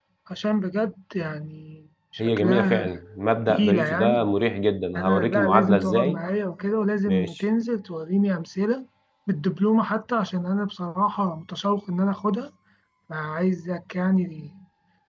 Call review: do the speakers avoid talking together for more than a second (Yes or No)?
No